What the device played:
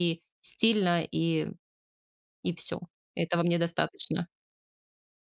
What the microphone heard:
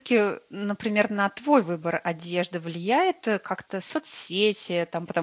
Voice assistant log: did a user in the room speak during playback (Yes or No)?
Yes